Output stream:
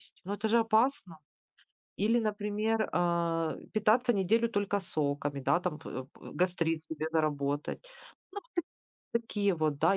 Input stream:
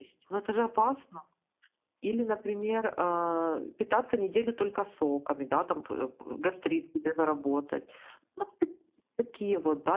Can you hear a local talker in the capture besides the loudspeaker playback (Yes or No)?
No